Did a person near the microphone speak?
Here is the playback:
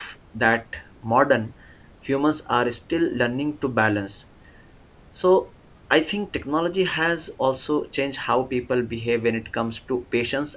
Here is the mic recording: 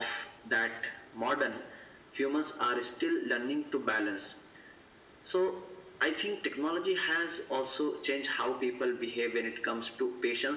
No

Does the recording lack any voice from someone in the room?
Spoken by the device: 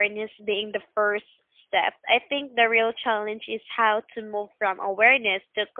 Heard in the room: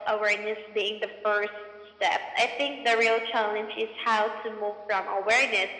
Yes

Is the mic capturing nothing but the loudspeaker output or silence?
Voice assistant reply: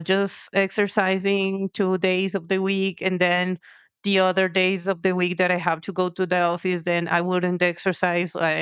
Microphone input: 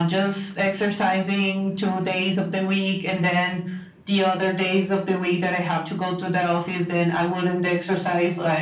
Yes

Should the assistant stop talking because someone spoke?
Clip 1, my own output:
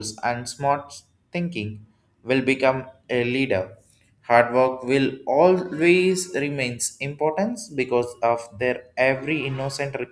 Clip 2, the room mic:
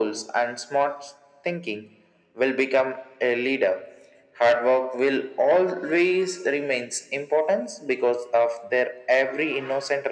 No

